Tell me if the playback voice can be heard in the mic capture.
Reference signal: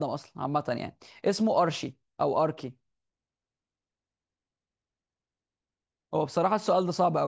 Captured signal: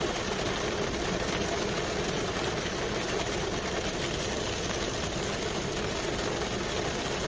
No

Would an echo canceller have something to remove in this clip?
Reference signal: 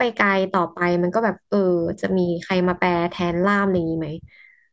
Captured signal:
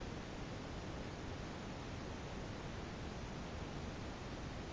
No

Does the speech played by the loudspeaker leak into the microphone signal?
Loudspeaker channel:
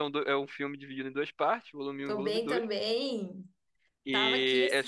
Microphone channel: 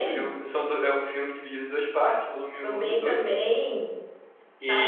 Yes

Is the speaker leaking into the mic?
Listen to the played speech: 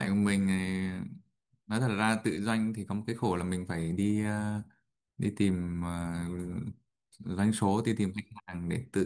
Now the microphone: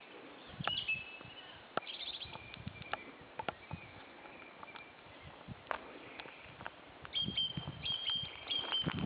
No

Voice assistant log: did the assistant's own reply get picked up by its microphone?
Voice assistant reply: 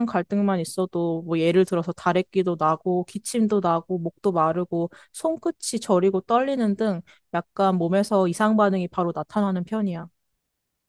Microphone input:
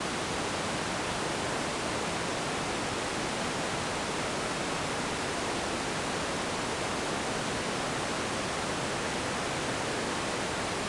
No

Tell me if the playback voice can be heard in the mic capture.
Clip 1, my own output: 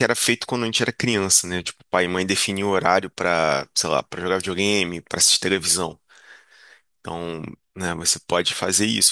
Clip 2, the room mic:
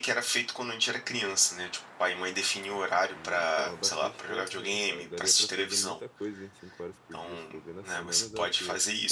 Yes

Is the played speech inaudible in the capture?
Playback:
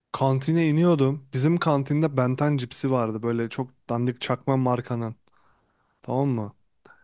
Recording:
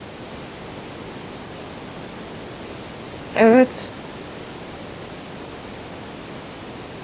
Yes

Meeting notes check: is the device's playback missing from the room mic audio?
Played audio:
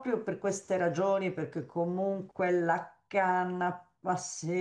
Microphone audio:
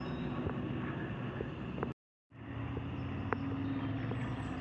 Yes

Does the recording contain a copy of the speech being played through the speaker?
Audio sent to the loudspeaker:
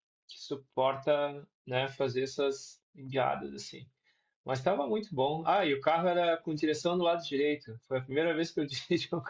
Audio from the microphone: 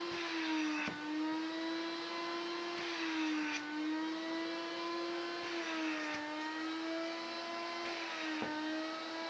No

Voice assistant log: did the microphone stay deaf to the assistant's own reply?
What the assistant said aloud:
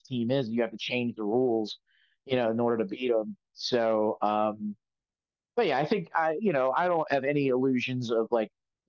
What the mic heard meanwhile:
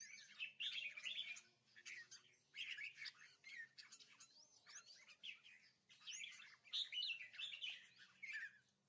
Yes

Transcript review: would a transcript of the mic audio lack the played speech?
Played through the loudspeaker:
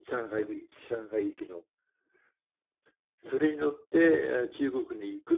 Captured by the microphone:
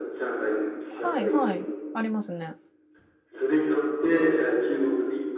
No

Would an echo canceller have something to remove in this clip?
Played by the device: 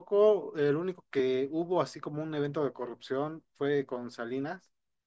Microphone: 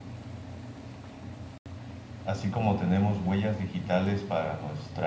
No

